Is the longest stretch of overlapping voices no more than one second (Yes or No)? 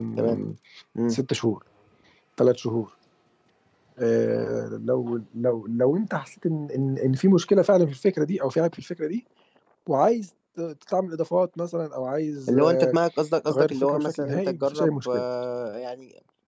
No